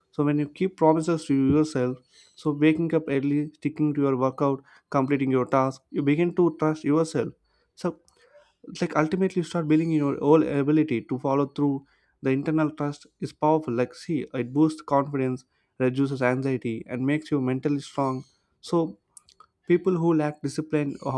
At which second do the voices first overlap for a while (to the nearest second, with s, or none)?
none